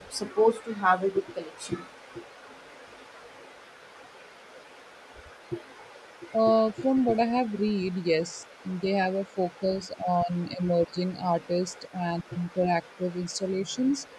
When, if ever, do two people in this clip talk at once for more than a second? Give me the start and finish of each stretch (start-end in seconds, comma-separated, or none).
none